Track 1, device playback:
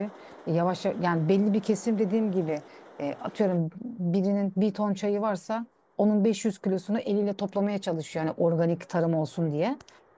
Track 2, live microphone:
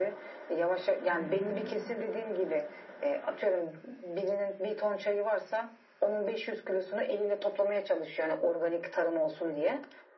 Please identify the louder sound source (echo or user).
echo